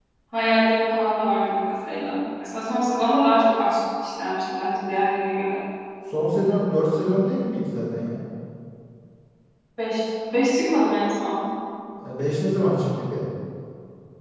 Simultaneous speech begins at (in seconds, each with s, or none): none